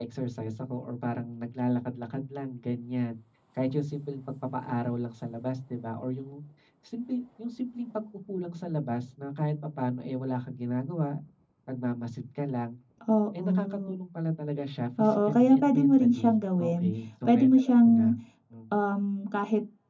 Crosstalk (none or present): present